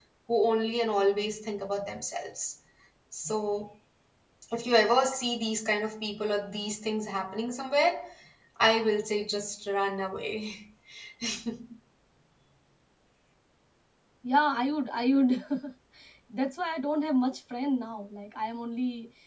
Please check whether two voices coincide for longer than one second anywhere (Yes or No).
No